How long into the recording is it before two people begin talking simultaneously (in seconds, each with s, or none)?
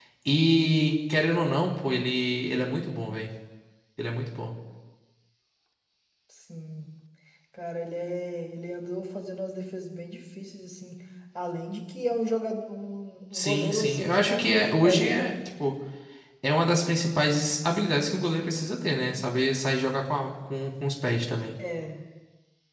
13.3 s